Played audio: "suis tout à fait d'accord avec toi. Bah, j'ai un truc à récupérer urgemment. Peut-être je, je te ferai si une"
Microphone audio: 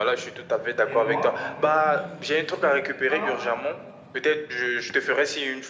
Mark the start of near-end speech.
0.8 s

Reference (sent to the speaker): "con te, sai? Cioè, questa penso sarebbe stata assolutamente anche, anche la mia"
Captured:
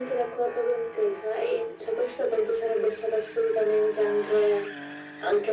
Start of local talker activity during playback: none

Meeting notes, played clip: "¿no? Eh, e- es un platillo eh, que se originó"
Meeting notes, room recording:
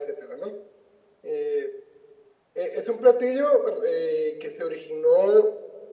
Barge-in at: none

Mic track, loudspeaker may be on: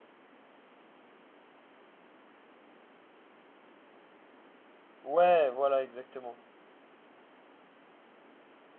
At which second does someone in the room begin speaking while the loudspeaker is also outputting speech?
5.0 s

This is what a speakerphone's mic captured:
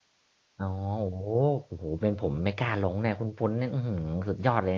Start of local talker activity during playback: 0.6 s

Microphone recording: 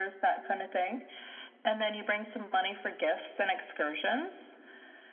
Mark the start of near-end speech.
none

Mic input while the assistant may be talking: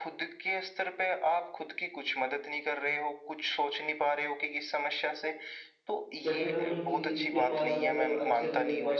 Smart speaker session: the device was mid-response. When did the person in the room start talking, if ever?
6.3 s

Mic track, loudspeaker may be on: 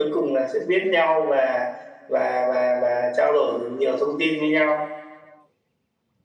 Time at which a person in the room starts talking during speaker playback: none

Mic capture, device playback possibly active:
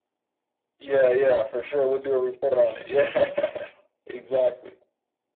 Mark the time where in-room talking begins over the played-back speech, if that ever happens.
none

